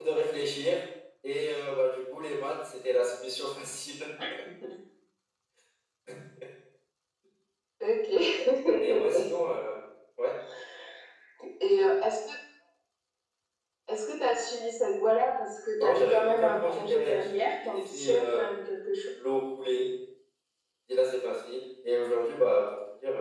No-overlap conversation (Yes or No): No